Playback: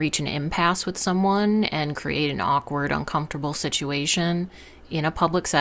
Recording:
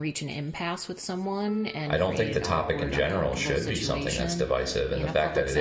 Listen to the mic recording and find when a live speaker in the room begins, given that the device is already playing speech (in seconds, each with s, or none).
1.9 s